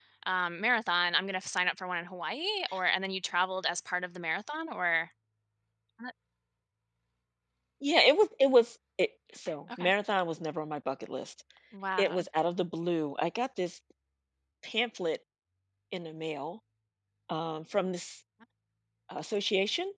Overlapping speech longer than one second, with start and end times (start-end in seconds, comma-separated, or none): none